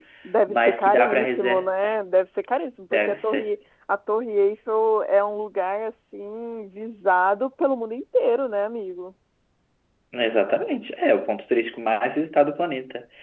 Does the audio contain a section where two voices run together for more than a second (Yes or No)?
Yes